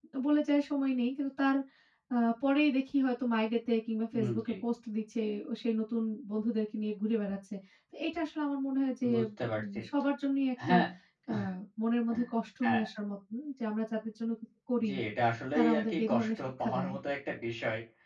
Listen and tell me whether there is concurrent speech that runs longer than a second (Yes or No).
Yes